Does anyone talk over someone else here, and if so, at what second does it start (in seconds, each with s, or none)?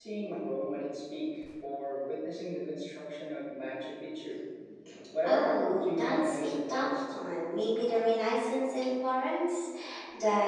5.2 s